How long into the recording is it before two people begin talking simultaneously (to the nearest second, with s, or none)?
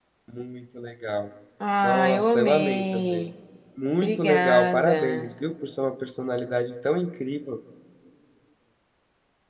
2 s